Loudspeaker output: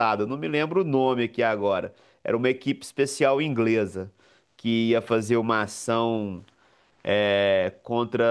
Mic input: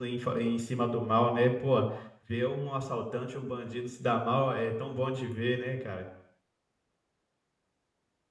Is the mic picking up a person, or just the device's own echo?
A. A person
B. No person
A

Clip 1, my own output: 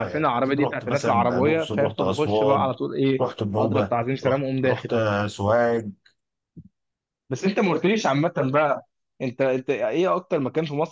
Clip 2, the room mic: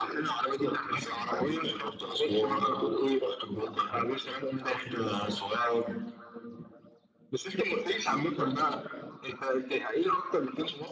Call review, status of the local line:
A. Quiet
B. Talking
A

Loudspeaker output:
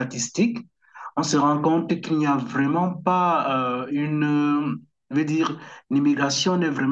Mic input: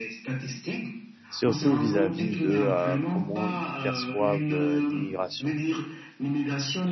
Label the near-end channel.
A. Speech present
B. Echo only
A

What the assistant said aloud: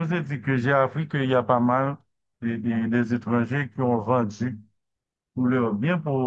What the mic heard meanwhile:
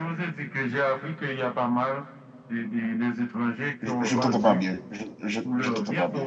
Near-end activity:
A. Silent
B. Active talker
B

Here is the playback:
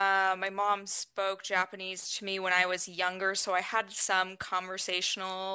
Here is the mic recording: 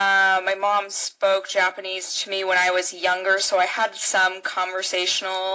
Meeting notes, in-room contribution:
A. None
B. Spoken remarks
A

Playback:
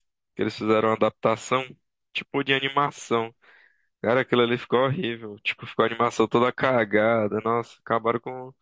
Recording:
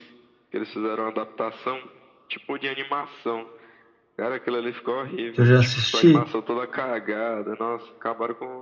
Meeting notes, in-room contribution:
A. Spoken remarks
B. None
A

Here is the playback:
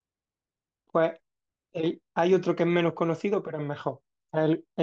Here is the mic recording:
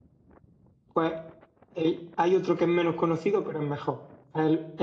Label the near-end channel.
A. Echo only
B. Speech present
A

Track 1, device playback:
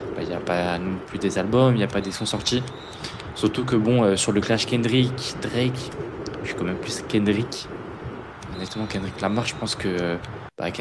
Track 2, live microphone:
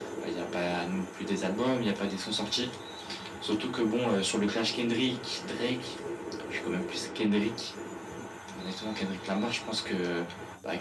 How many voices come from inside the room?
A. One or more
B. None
B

